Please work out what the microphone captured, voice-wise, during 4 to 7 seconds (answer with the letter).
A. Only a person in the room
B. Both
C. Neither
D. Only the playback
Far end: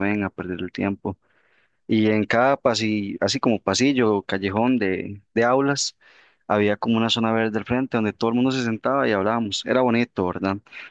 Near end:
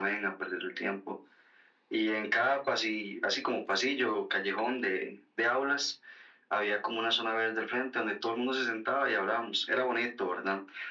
D